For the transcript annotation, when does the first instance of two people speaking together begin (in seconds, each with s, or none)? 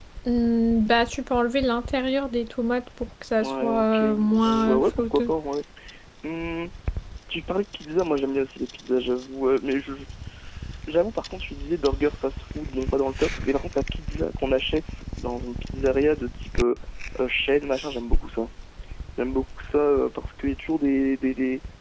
3.4 s